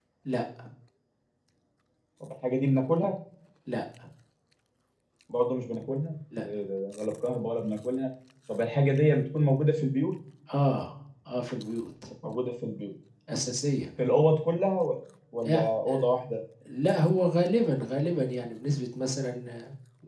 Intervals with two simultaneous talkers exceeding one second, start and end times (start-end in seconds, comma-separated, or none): none